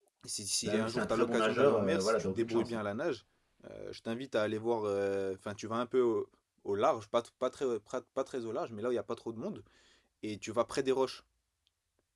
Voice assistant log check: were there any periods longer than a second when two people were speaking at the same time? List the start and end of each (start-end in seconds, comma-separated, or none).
0.6-2.8